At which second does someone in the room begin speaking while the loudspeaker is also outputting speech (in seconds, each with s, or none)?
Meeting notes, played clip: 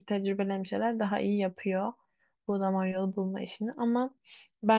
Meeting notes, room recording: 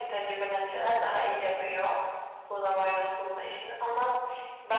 none